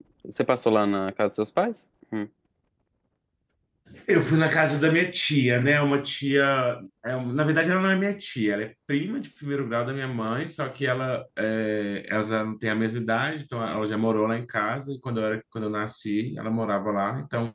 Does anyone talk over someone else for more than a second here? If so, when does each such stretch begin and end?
none

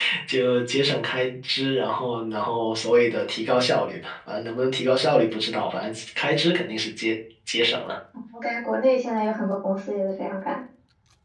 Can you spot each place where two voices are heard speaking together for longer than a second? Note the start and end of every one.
none

